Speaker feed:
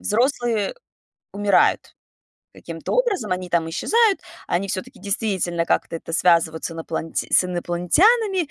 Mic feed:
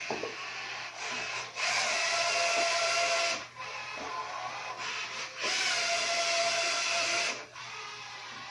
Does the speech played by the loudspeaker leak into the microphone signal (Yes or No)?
No